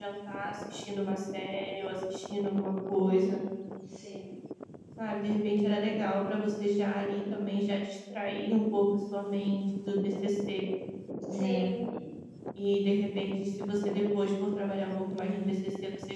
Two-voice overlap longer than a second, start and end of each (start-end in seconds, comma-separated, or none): none